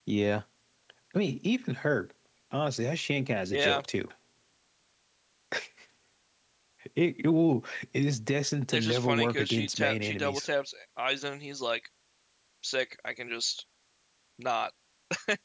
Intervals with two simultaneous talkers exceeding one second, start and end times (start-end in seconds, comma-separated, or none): 8.7-10.5